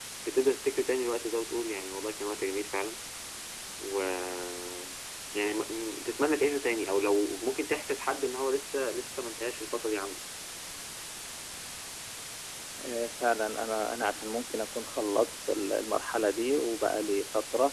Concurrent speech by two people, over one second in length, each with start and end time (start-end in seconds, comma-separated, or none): none